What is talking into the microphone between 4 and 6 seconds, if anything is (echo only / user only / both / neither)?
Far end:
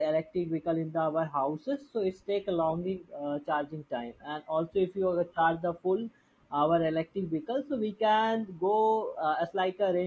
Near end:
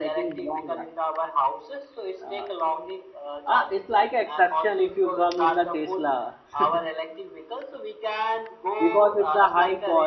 both